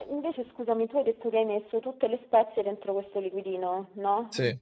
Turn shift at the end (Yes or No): No